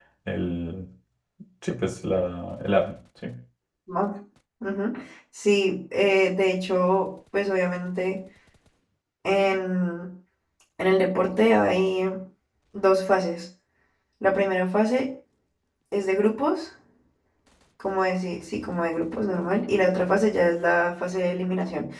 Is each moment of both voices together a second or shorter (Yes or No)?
Yes